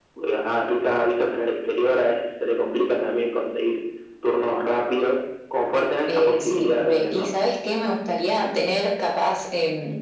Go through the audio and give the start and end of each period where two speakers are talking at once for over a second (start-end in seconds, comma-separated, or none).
6.1-7.3